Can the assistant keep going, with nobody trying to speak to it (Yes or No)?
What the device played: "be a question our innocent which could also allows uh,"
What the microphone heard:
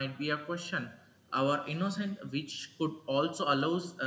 Yes